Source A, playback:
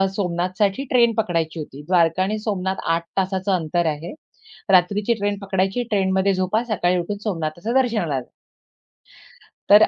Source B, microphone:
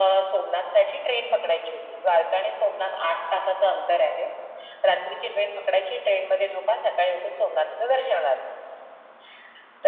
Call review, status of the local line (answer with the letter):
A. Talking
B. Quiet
B